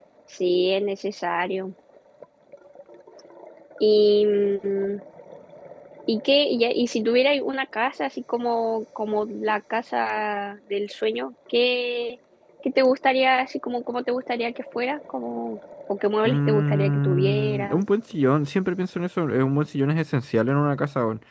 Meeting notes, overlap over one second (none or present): present